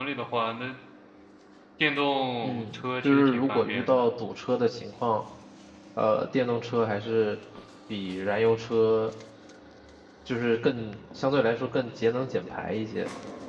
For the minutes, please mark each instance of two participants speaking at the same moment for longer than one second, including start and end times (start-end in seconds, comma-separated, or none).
2.4-4.1